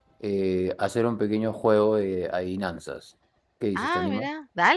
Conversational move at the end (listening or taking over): taking over